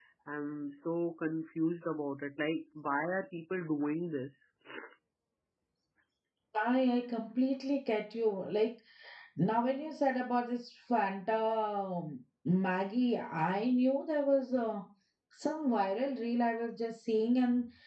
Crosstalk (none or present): none